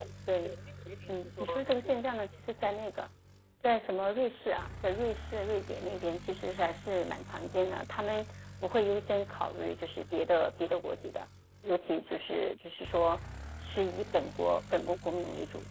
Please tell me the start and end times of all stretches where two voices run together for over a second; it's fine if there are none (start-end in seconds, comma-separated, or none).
1.1-2.3